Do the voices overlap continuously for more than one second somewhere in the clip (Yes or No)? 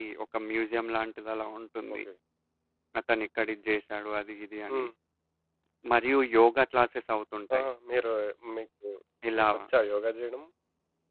No